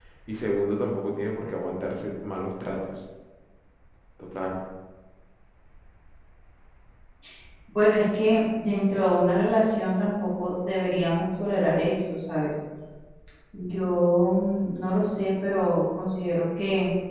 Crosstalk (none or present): none